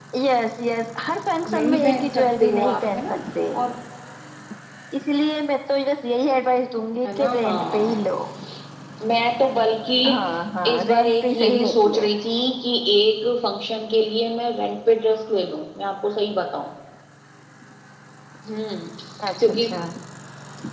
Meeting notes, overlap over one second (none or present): present